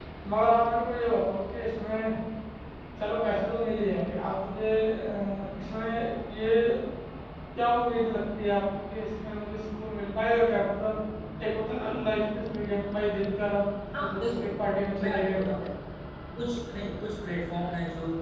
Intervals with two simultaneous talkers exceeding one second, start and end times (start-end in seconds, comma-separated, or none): none